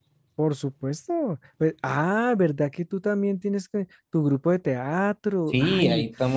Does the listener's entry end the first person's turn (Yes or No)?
Yes